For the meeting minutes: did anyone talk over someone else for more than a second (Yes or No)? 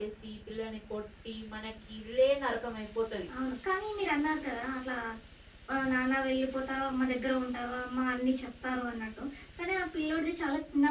No